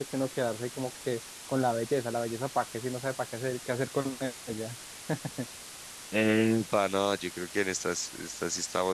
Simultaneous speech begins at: none

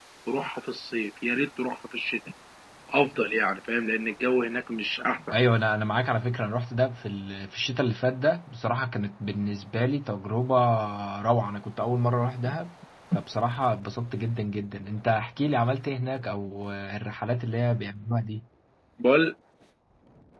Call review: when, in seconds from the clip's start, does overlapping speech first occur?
none

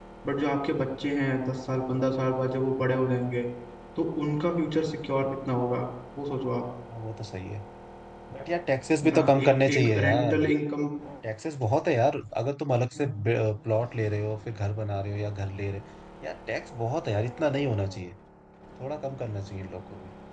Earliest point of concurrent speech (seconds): 9.0 s

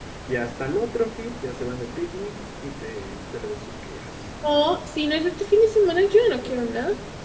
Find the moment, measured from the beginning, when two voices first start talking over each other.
none

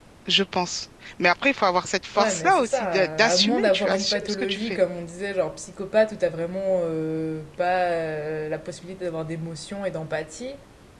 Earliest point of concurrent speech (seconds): 2.2 s

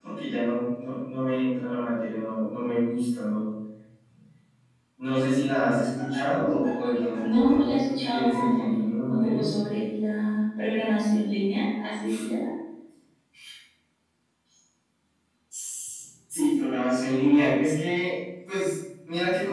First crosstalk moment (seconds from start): 7.2 s

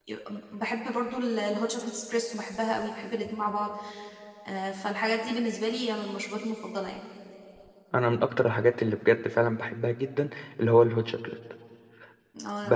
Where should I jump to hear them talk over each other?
none

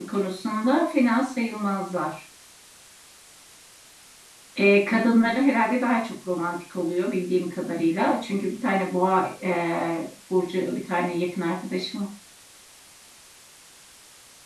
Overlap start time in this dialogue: none

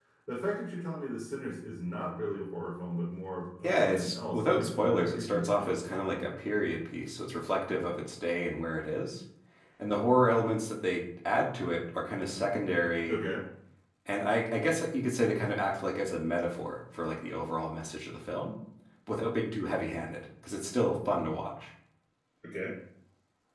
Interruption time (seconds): 3.6 s

